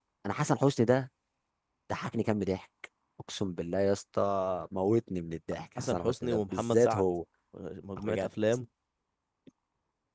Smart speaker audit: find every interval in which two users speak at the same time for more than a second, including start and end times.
5.8-7.0

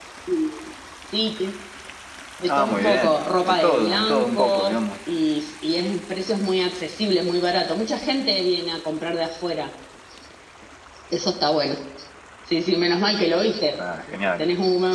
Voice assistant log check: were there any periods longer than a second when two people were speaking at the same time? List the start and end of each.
2.5-4.8

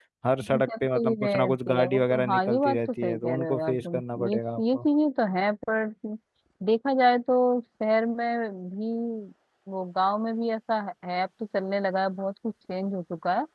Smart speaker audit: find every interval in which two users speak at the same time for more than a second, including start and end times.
0.5-4.8

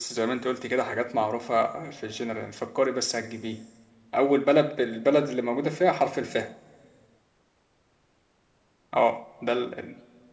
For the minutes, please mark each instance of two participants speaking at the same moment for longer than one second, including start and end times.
none

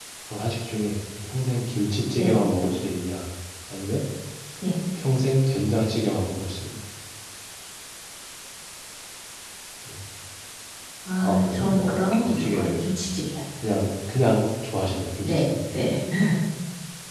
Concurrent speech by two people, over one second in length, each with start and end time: 11.2-12.7

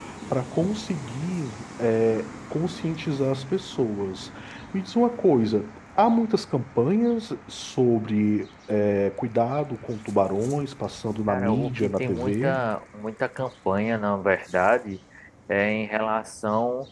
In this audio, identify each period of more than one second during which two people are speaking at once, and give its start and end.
11.3-12.6

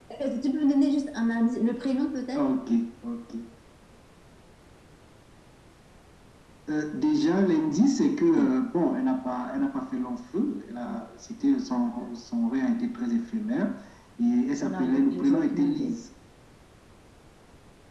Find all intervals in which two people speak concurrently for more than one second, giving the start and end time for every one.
14.6-15.9

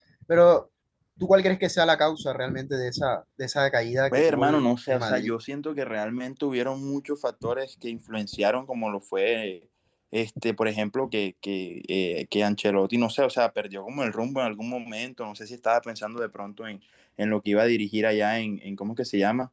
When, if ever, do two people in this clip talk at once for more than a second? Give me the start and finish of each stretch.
4.1-5.3

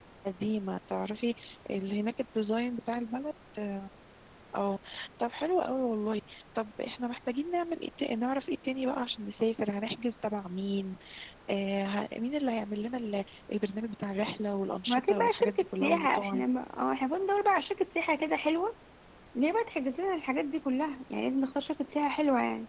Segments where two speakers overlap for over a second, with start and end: 14.9-16.4

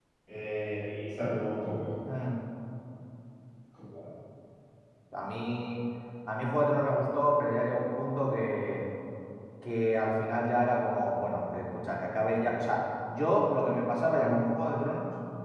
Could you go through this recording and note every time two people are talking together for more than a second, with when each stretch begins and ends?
none

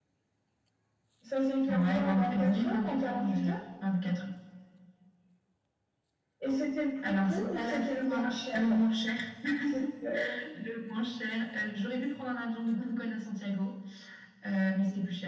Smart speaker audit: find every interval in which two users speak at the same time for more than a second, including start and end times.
1.7-3.6, 7.0-8.9

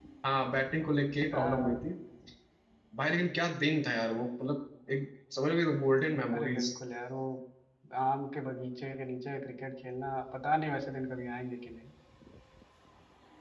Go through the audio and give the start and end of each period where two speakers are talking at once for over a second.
none

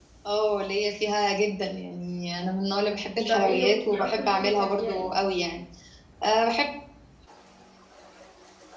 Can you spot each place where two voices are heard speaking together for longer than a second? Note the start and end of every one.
3.3-5.1

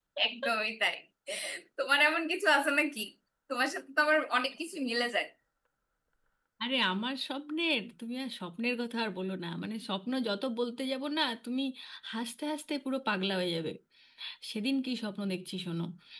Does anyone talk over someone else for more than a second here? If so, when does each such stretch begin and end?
none

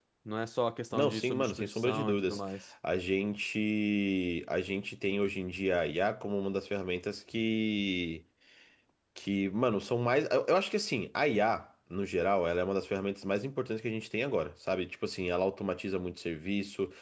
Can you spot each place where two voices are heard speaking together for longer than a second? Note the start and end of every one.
0.9-2.4

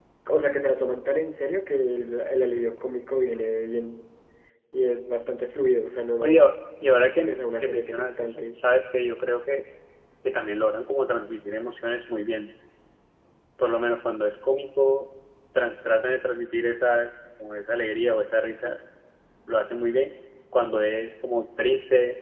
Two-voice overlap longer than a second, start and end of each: 7.2-8.6

